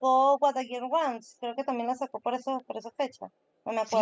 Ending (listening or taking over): taking over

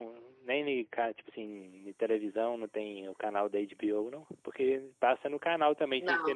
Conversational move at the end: listening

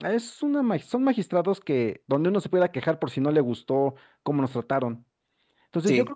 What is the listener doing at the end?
listening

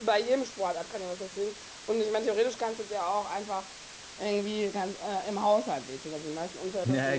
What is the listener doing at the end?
taking over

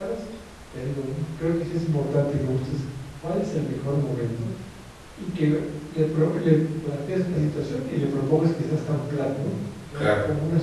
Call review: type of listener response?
listening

